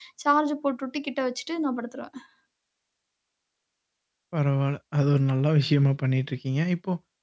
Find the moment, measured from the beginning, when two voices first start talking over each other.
none

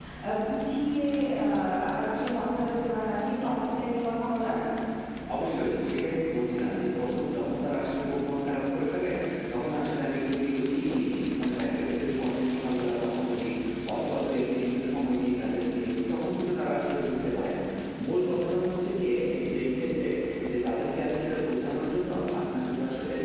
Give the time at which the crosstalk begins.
none

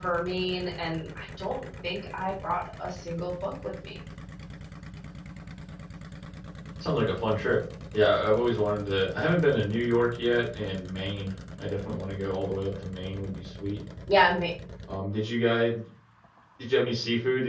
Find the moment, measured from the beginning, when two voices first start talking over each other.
none

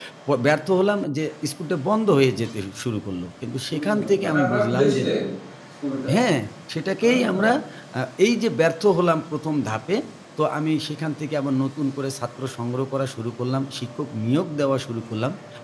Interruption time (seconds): 4 s

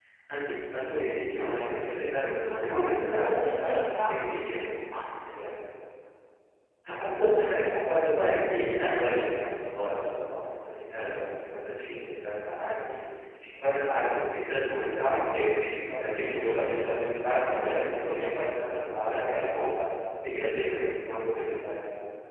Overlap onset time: 2 s

